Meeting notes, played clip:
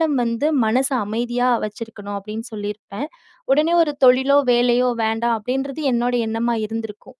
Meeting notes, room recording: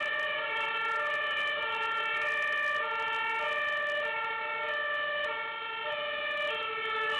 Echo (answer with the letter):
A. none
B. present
A